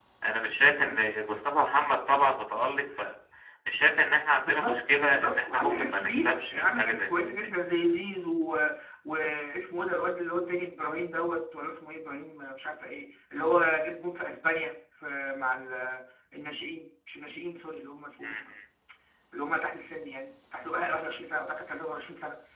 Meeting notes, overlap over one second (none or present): present